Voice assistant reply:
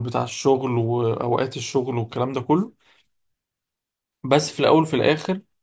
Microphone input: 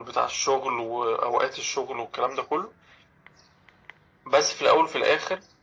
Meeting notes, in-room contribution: none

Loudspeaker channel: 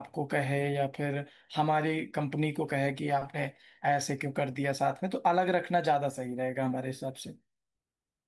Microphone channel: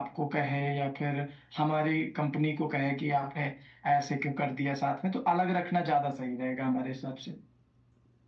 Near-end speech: none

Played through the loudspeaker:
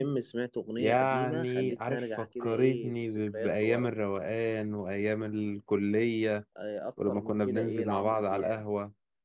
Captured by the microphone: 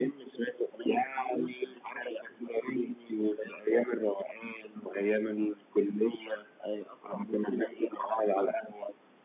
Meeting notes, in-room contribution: none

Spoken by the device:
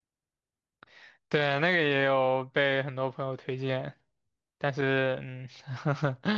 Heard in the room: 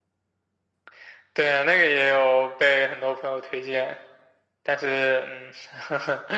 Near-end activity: none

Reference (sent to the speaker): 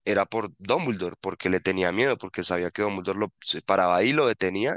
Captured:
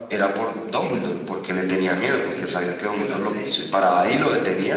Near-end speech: present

